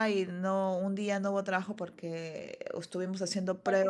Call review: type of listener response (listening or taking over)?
taking over